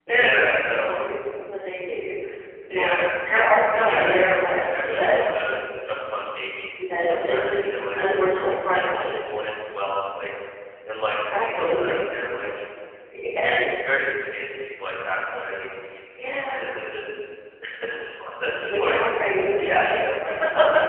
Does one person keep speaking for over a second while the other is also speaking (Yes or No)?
Yes